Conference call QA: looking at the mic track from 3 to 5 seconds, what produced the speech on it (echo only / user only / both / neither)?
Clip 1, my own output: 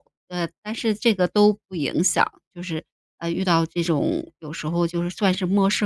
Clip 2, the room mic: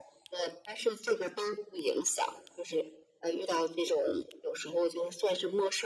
echo only